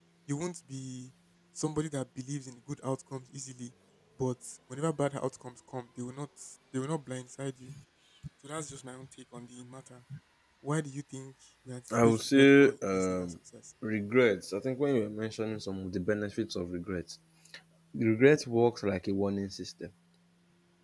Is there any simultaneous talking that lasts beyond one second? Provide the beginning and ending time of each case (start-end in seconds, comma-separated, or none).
11.9-13.3